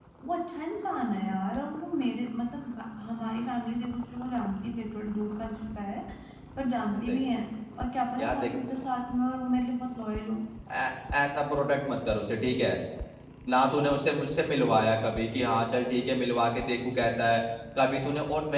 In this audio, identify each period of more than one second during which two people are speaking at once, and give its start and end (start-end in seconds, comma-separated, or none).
none